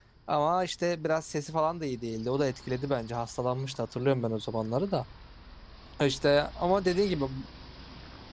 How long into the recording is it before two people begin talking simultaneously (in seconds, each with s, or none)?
none